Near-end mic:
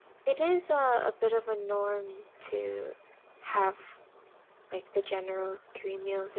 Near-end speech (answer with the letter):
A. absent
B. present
B